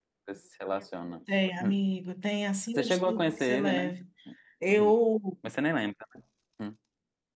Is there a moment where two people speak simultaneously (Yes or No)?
Yes